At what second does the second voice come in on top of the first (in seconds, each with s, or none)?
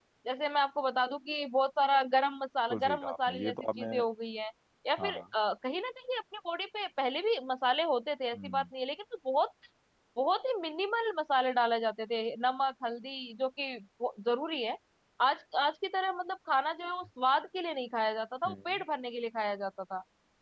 2.7 s